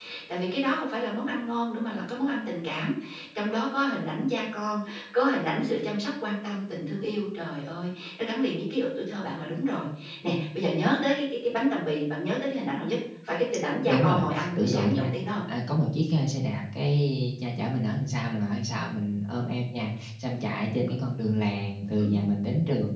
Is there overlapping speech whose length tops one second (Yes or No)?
Yes